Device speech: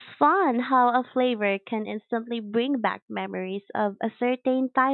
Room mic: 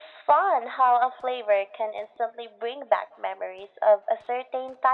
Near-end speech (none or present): none